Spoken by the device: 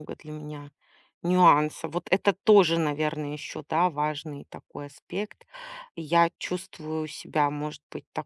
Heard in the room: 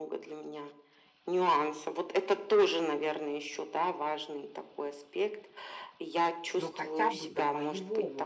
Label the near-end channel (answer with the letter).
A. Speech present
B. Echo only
A